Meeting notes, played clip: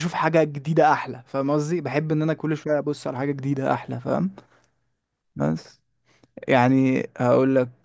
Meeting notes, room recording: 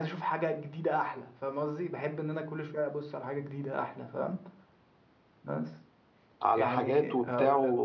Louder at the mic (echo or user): user